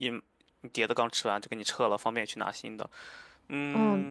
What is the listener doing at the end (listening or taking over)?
taking over